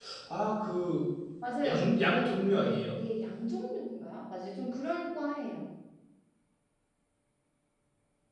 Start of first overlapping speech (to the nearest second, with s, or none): 2 s